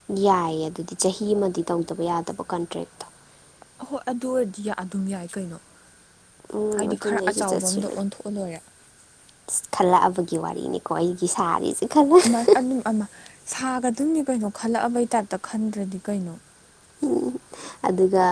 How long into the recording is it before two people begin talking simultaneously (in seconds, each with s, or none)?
6.8 s